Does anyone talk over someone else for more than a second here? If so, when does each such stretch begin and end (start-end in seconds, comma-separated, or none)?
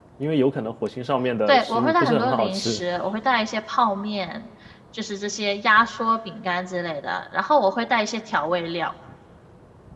1.5-2.8